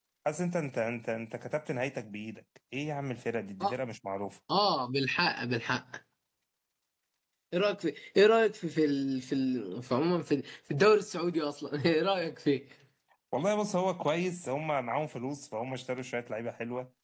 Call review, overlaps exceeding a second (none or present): none